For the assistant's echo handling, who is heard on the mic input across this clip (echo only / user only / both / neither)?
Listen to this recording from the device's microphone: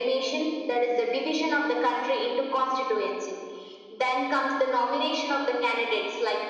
echo only